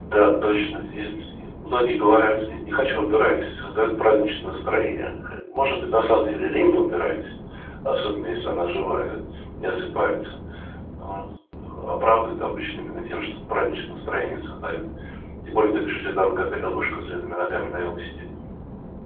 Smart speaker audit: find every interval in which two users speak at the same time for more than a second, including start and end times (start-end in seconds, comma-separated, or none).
none